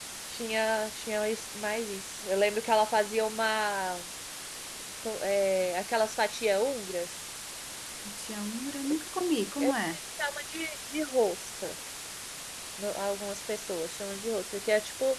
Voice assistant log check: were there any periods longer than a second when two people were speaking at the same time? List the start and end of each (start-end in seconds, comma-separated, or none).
none